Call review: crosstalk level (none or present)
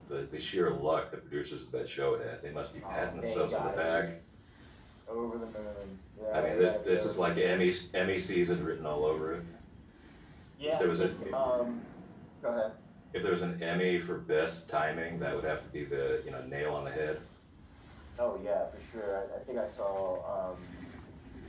present